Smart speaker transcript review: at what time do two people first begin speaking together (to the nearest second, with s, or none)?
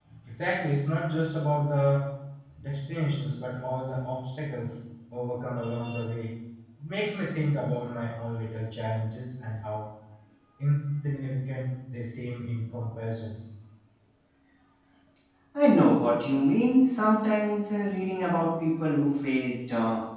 none